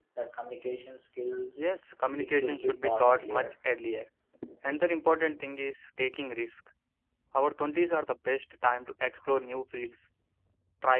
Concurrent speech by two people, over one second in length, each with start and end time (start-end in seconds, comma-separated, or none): 2.2-3.5